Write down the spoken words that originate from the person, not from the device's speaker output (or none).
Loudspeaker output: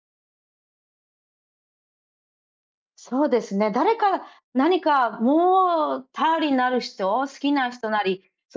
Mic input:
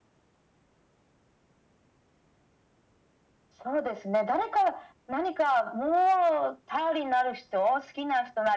none